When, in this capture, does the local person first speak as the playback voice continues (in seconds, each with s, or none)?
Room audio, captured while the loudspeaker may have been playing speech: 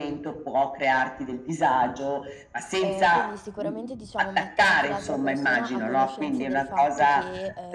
2.8 s